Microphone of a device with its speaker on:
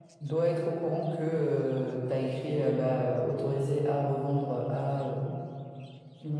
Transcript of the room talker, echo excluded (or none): none